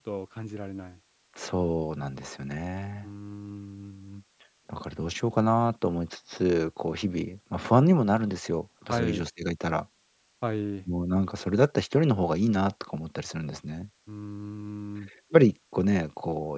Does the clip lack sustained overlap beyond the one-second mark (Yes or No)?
Yes